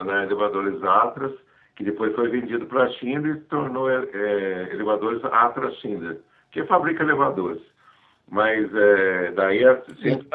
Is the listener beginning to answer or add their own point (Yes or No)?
No